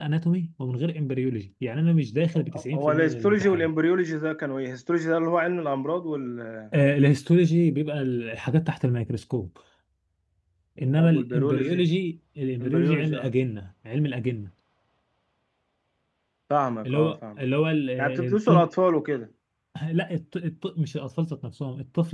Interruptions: present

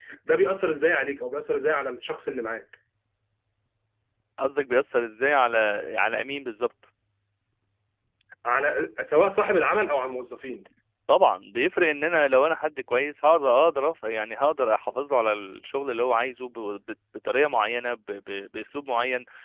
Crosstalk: none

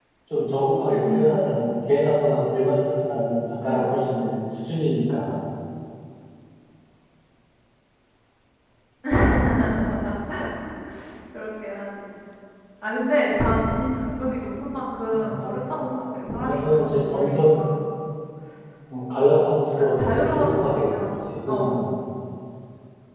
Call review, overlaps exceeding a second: present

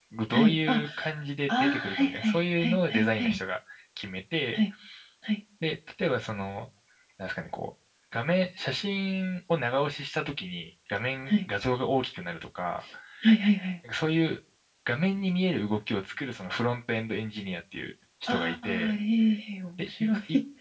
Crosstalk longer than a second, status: present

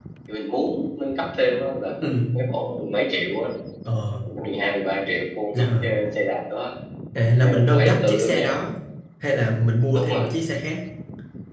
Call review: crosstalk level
present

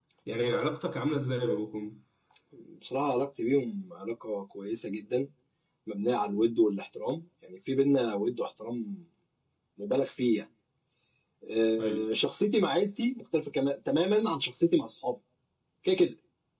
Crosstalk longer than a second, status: none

